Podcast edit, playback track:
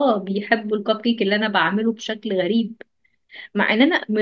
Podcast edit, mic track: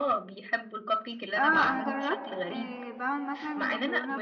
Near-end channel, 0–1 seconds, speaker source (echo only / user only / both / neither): echo only